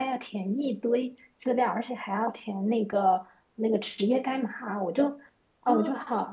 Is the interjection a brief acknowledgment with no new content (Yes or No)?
Yes